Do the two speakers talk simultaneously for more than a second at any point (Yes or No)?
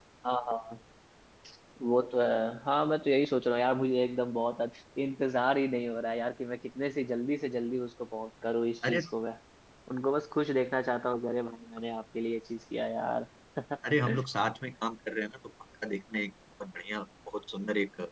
No